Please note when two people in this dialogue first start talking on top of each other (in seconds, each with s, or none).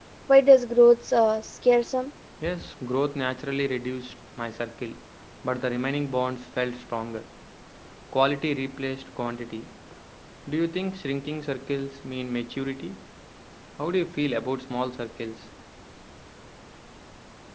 none